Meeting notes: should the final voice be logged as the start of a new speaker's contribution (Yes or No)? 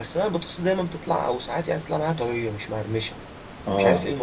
Yes